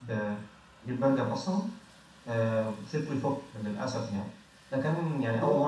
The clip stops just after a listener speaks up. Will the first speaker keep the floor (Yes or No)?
Yes